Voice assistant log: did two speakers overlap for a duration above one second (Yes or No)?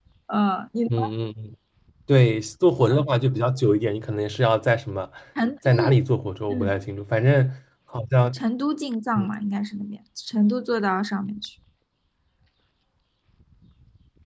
No